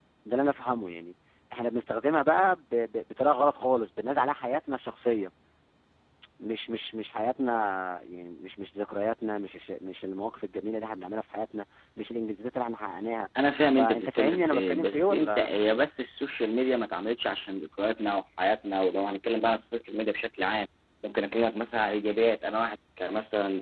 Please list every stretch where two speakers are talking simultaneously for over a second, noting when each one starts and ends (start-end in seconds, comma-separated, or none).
13.8-15.5